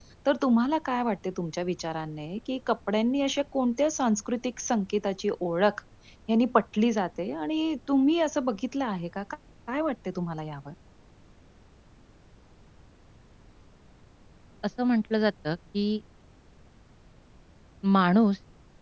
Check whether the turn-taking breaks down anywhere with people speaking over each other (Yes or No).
No